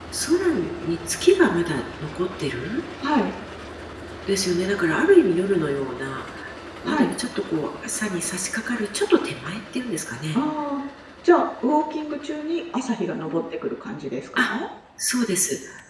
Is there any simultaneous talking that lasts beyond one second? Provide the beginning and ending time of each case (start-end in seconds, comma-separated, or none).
none